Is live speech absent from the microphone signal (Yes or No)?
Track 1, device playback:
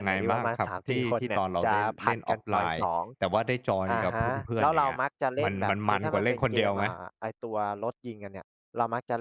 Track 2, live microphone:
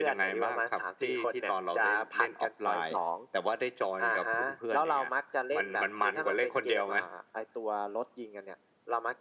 Yes